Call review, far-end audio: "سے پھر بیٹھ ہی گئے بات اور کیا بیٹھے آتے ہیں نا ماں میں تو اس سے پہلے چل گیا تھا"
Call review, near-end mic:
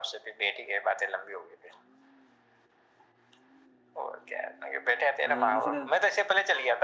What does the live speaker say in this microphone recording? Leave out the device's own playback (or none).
ہاں ایگنیشن